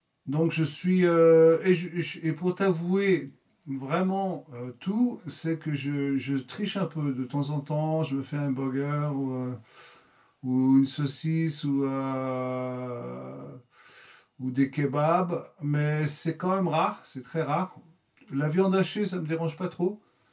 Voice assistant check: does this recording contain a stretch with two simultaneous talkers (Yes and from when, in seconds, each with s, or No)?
No